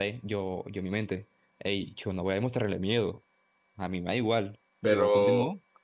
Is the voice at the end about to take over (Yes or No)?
Yes